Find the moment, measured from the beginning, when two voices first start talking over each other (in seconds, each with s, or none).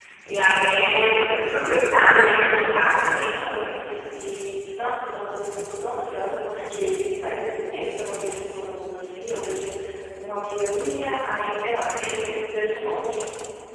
1.9 s